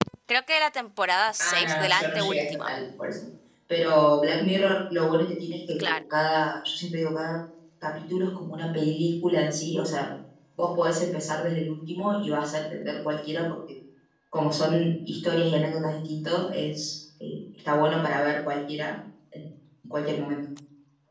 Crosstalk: present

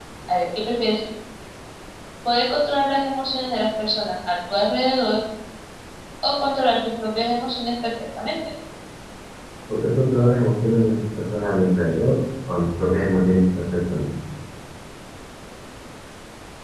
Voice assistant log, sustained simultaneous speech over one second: none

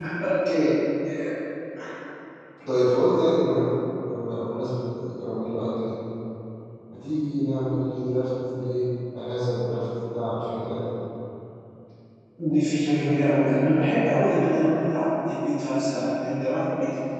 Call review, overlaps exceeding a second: none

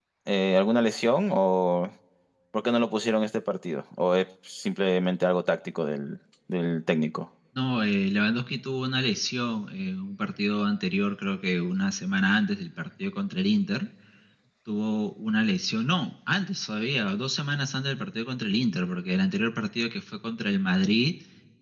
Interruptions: none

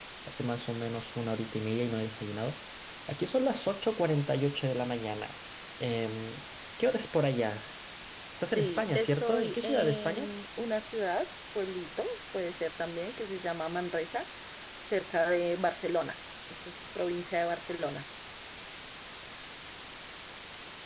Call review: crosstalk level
present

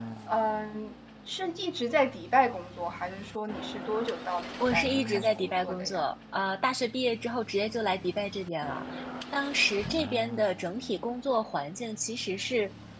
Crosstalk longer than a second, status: present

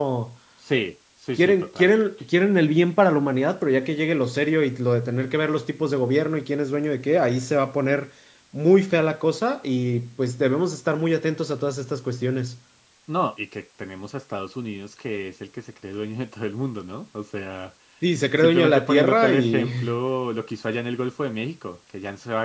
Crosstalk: present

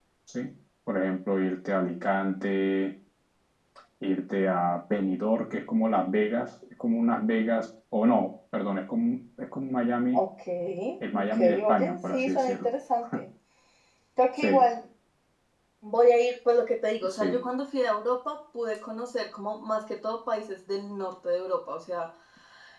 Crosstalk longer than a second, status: present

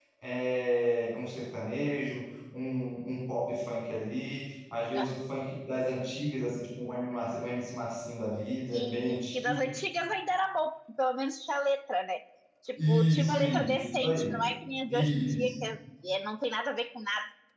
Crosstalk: present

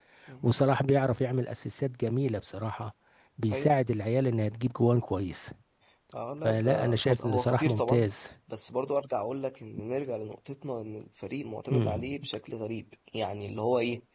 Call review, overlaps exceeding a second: present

